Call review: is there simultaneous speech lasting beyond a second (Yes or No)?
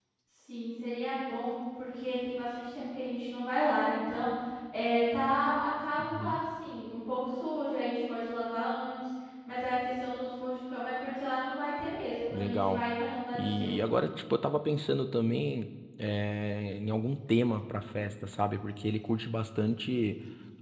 No